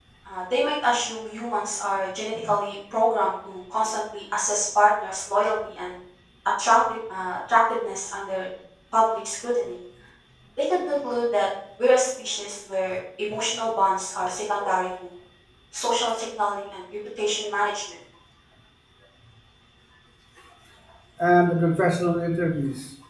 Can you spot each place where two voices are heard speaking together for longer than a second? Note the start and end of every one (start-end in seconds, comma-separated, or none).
none